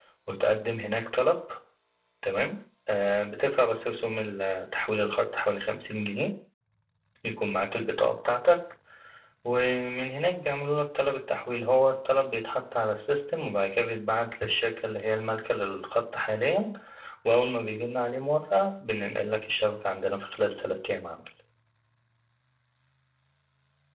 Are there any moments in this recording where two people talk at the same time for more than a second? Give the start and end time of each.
none

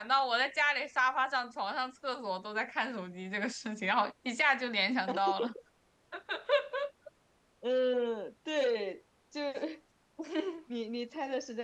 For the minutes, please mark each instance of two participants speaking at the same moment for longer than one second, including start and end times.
none

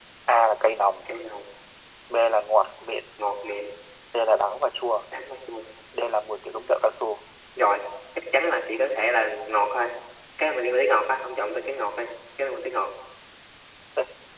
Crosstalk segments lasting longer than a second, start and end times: none

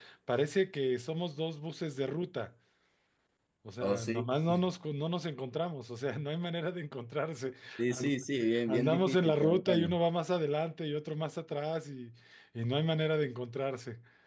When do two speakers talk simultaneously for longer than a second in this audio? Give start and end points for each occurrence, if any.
8.7-10.0

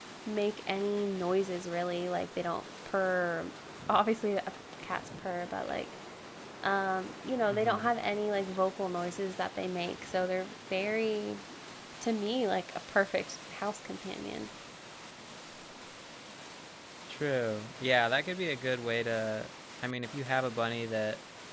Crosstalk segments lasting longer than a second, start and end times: none

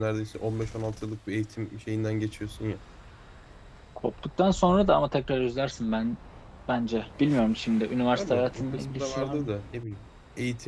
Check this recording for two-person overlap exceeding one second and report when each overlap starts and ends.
8.2-9.5

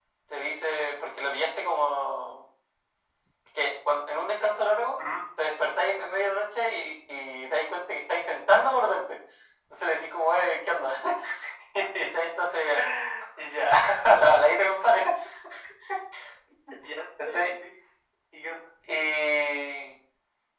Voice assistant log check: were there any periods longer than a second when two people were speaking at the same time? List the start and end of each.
none

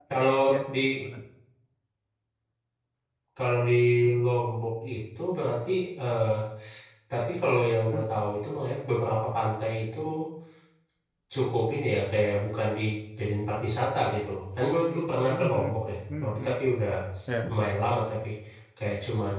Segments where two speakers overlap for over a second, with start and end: none

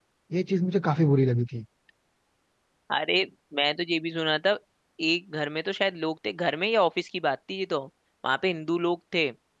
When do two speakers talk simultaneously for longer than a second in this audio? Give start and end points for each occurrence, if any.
none

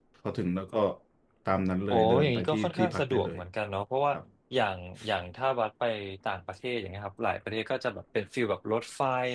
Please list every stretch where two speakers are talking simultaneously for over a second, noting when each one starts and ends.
1.9-3.4

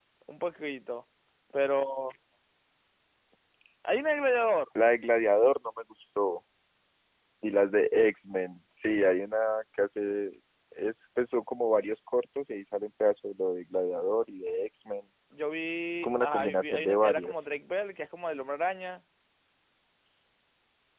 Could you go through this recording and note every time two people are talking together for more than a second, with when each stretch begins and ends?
16.0-17.4

